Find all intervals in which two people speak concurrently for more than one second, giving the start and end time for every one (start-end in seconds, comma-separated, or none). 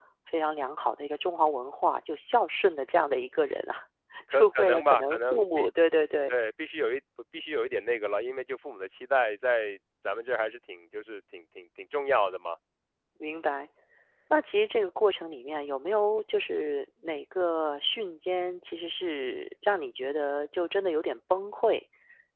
4.3-5.7